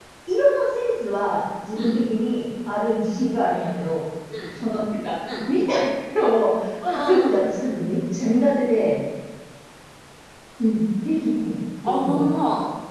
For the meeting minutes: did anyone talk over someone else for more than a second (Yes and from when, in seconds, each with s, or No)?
No